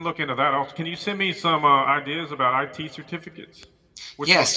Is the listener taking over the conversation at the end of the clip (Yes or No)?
Yes